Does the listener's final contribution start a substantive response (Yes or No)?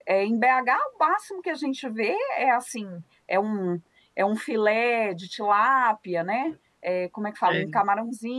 No